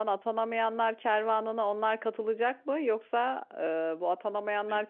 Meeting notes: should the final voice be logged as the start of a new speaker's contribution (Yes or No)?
No